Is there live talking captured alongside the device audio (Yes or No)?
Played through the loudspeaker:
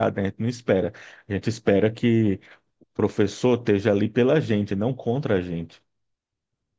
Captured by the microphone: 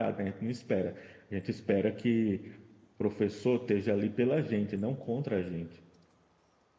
No